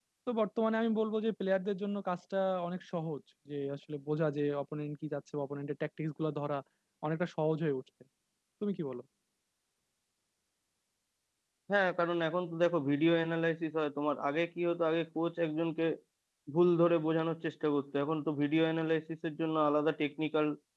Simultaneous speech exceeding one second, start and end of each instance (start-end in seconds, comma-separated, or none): none